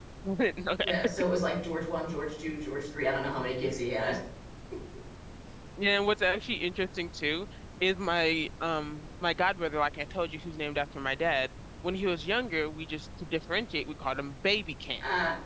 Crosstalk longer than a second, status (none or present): none